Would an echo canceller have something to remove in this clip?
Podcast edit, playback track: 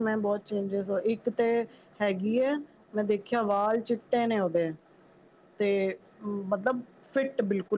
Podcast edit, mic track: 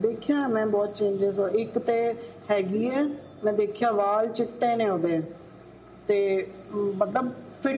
Yes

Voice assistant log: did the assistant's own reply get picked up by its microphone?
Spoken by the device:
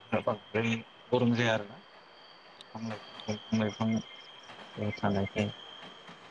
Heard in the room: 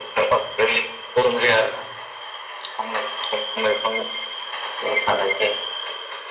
Yes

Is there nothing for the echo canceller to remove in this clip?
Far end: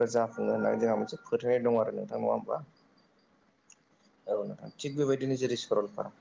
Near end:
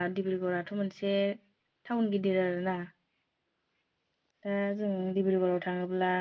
Yes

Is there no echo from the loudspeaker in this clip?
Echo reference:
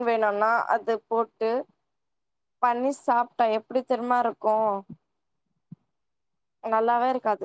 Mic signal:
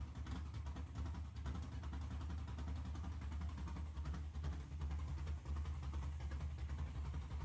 Yes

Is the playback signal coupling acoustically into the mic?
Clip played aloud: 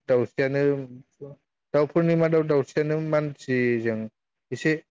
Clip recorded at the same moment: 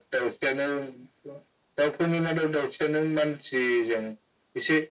Yes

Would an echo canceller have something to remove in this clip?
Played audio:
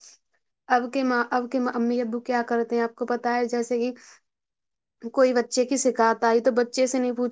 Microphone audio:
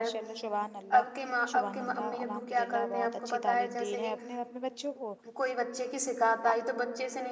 Yes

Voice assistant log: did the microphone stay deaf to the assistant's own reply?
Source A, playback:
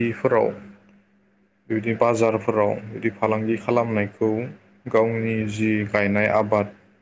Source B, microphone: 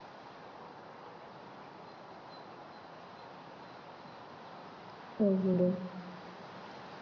Yes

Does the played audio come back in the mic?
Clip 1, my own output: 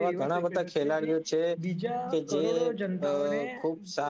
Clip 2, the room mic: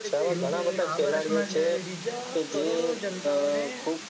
Yes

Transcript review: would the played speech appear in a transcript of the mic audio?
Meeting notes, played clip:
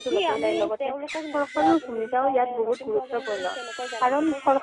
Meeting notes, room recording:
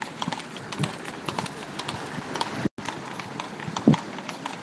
No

